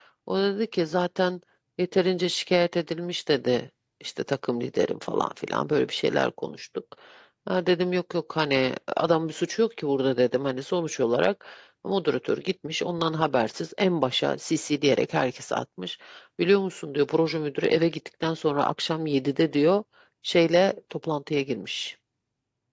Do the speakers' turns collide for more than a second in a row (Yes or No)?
No